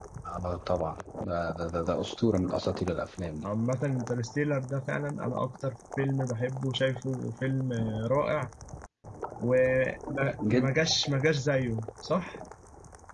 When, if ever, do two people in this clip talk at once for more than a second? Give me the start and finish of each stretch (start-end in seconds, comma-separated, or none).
none